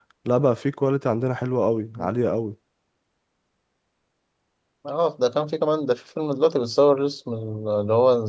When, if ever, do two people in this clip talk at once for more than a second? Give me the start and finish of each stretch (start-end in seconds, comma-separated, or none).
none